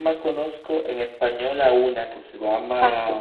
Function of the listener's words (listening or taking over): listening